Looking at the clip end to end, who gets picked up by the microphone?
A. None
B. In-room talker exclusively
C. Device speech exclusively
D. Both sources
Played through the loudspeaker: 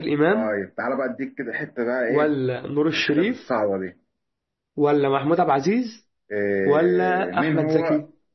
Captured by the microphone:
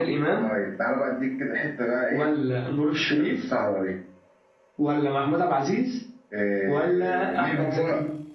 C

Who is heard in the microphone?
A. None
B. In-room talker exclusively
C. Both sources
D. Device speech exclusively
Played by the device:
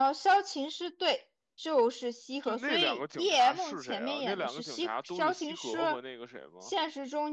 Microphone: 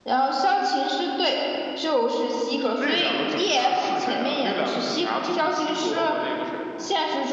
D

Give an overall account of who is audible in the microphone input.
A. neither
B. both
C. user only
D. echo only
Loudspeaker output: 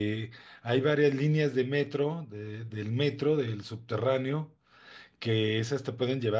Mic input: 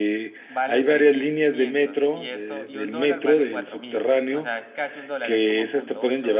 B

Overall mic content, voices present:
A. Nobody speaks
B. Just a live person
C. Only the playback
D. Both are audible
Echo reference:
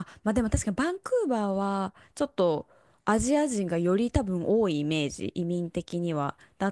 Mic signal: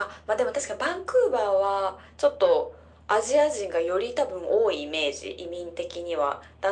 C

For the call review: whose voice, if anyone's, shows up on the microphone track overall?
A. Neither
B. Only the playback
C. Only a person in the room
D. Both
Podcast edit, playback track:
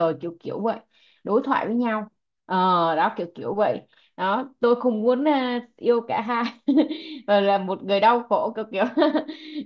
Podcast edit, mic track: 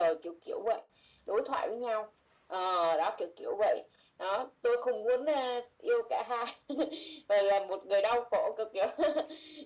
B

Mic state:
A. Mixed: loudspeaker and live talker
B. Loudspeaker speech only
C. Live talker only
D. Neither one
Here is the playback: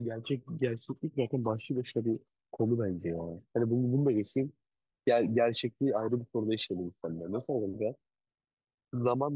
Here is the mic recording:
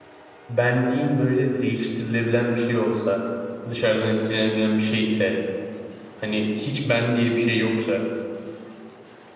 C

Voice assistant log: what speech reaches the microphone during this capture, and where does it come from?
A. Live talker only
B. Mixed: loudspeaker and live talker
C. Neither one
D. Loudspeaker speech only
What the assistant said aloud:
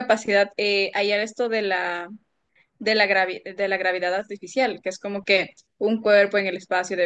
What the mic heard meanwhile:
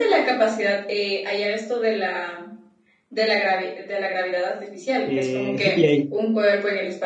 B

